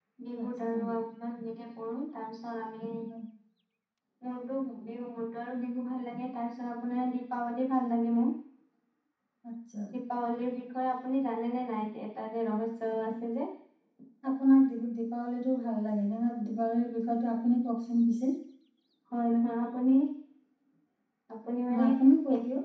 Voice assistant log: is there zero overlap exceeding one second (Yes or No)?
Yes